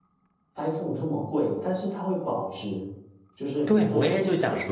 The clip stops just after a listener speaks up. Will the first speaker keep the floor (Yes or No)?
No